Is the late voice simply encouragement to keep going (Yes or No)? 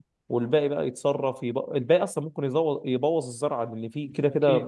Yes